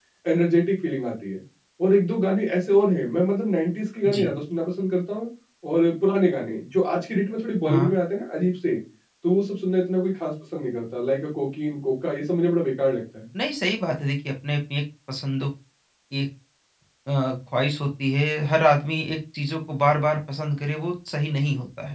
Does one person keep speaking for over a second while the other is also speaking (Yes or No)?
No